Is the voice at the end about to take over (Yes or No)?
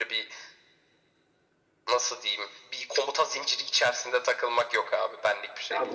Yes